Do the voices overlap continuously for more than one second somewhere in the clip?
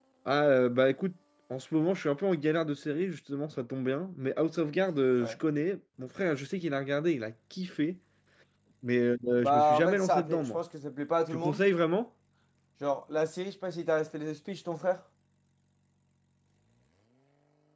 Yes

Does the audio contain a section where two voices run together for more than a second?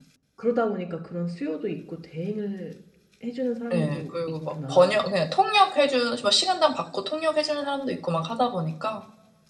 Yes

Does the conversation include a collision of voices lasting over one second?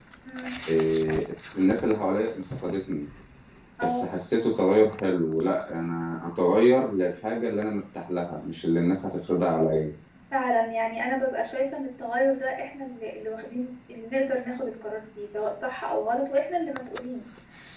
No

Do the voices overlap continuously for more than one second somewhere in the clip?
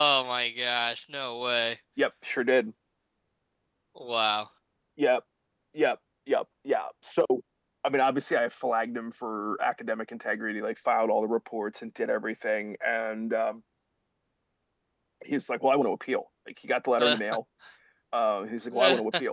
No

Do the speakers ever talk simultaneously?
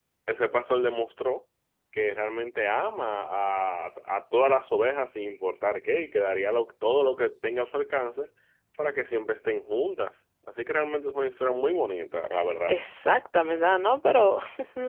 No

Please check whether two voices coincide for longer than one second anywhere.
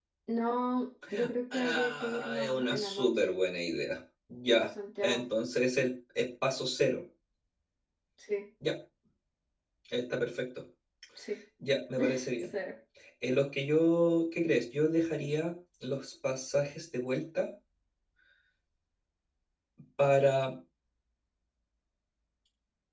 Yes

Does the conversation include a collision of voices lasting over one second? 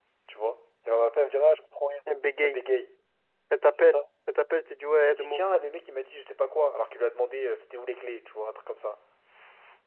No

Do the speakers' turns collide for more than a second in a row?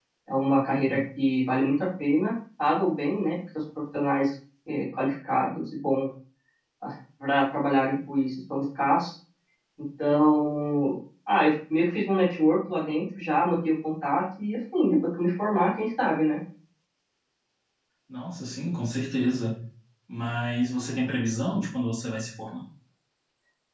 No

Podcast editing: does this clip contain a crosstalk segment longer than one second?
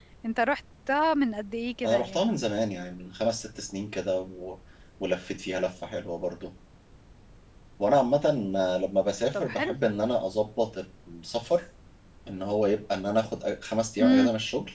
No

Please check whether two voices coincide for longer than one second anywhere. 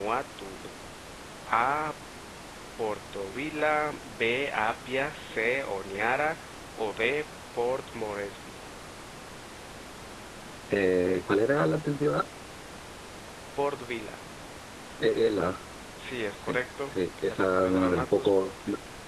Yes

